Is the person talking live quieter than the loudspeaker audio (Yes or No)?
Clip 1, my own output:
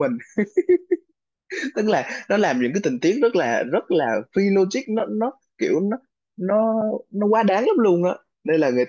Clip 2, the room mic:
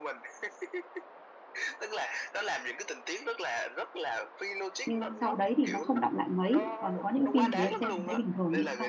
No